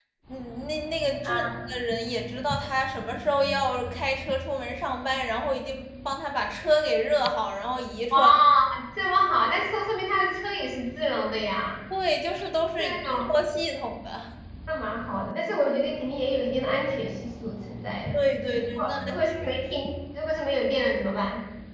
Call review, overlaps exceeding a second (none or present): present